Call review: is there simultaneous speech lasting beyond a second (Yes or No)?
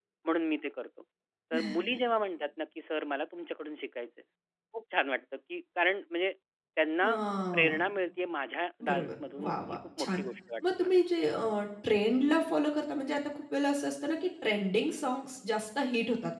Yes